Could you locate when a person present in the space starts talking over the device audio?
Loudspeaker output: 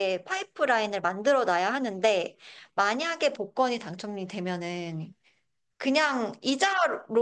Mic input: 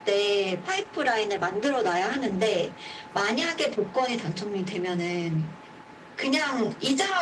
none

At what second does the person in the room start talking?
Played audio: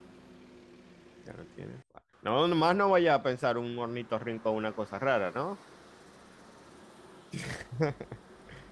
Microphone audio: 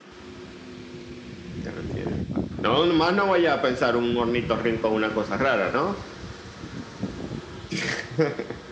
none

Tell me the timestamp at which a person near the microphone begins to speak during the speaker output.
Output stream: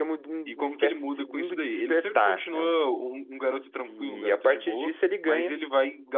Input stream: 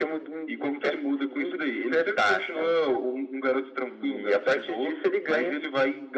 none

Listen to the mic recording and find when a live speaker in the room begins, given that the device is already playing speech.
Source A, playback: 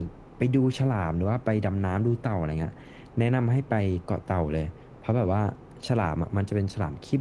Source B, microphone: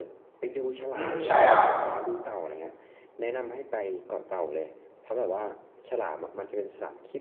0.9 s

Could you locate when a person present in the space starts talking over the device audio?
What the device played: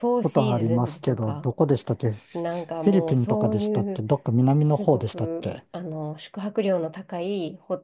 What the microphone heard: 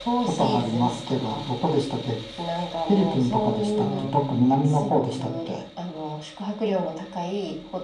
3.7 s

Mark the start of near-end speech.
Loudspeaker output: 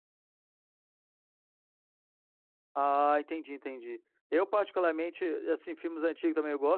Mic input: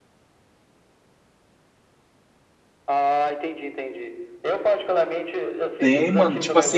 5.8 s

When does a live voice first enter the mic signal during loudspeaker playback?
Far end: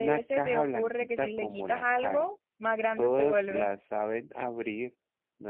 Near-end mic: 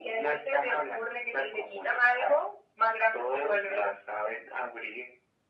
none

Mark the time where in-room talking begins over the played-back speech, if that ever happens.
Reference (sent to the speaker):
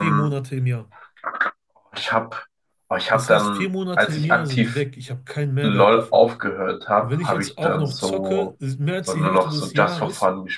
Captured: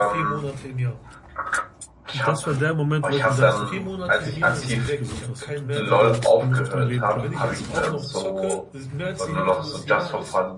2.1 s

